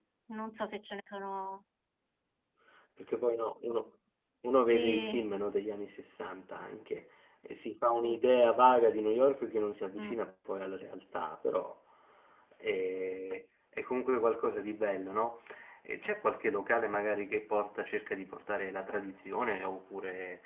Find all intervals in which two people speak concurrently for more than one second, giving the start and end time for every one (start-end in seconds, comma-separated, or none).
none